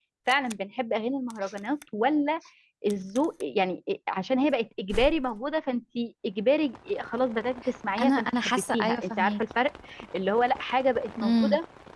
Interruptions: present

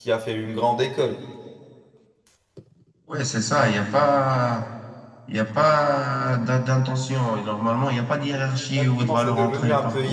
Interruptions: present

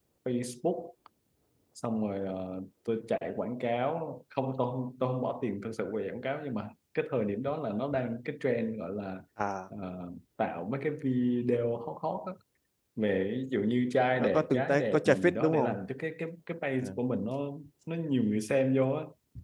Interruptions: present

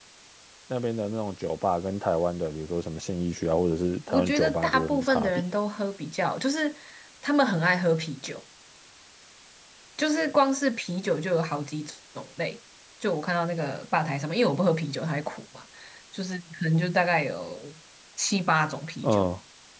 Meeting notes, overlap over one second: present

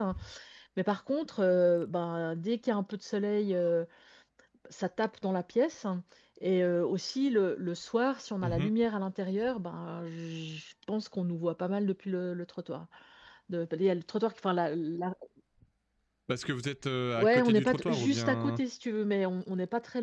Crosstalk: present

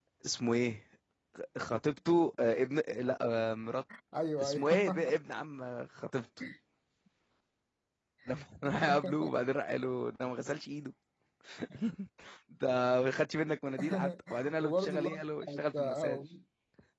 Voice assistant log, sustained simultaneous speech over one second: present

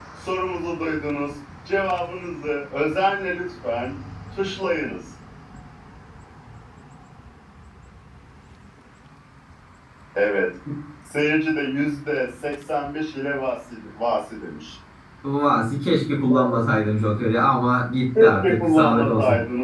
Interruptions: present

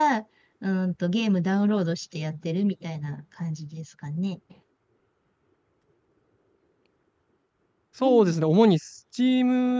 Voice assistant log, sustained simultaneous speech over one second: none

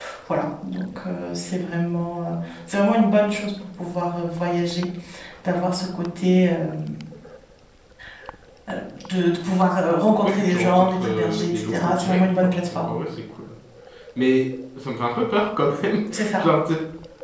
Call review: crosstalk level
present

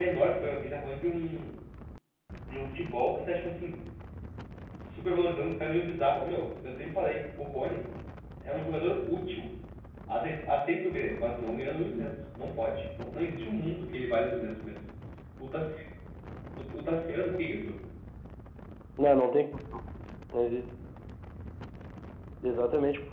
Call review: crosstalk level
none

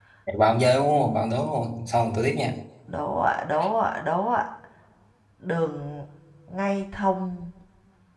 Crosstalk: none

